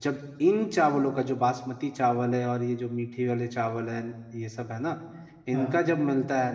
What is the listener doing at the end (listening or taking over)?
listening